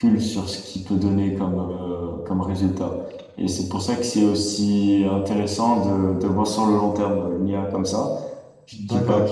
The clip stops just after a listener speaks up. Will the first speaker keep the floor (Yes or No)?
Yes